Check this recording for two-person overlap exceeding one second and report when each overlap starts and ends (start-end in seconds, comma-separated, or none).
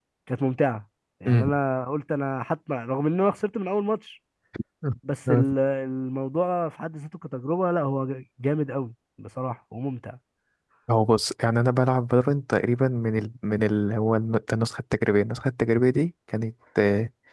none